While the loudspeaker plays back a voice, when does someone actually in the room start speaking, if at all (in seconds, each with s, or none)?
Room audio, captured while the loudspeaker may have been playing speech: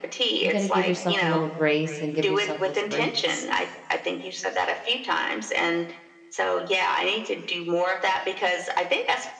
0.4 s